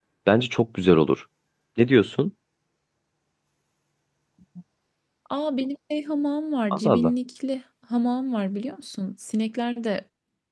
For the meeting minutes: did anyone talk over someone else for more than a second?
No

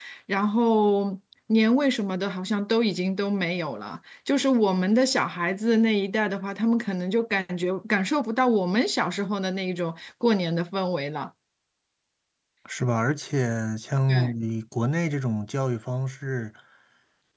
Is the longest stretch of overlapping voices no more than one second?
Yes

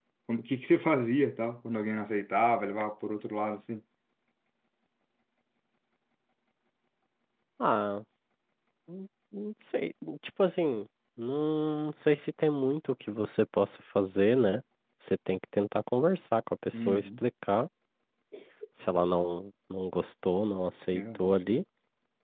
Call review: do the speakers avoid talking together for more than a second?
Yes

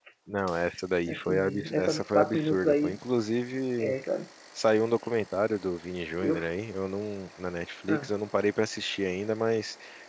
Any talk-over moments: Yes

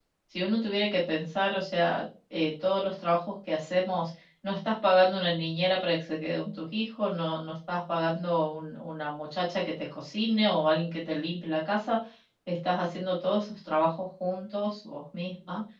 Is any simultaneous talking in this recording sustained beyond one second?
No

